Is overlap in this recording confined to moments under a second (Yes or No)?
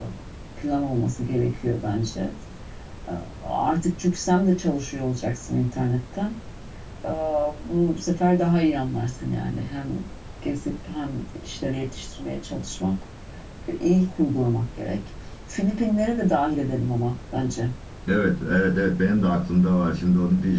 Yes